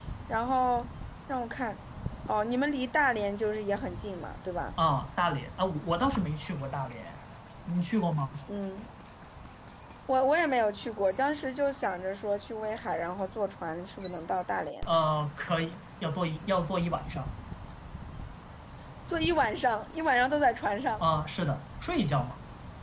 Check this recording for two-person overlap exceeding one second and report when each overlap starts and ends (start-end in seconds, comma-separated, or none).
none